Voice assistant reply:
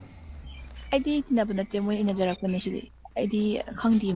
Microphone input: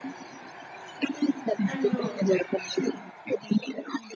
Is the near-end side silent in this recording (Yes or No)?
No